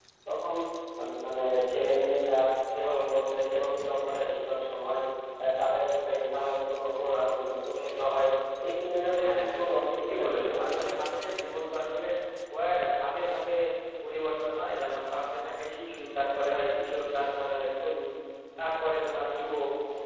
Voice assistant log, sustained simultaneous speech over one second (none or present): present